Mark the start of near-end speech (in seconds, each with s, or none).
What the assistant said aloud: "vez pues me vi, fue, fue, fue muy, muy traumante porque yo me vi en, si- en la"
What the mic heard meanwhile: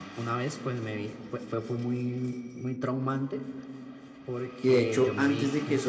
4.6 s